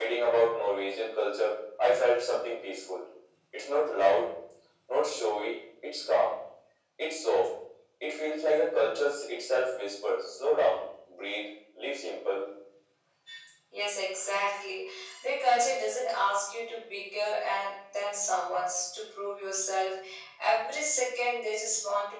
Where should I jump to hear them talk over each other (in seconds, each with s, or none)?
none